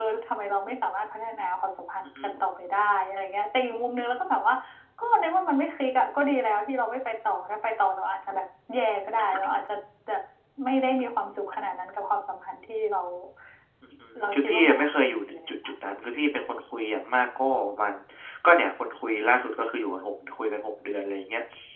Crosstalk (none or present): present